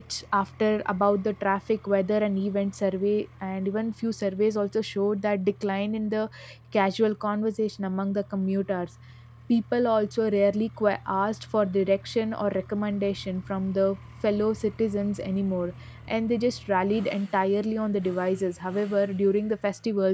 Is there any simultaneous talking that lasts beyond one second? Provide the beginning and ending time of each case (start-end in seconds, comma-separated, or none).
none